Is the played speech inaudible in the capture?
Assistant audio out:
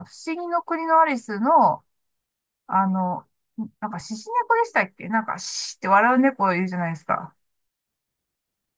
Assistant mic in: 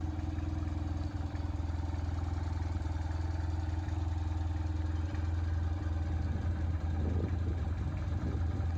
Yes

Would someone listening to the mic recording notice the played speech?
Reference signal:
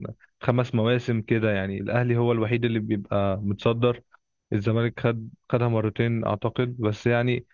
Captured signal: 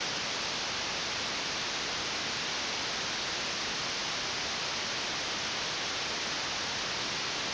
No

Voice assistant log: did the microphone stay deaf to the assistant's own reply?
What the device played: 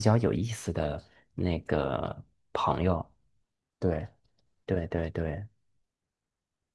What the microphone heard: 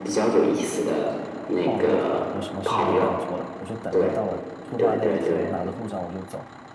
No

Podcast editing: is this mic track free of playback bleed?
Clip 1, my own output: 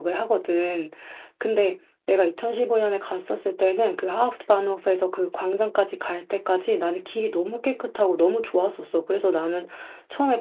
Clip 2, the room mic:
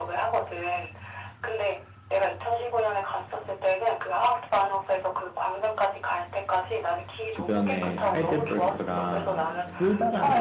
No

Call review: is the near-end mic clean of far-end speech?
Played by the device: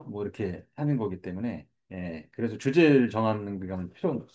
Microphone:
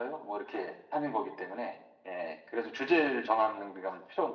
No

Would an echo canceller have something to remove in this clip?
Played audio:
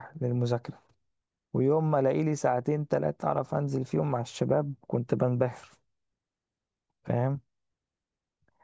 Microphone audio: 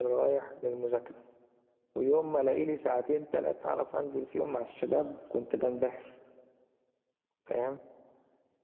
Yes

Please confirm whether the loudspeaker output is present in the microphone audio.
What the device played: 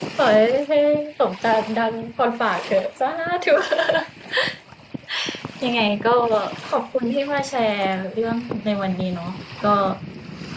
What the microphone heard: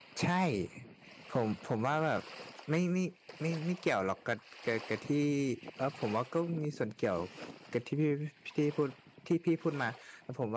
No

